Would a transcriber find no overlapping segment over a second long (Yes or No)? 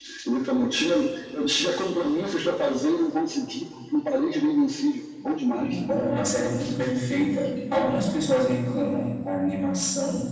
Yes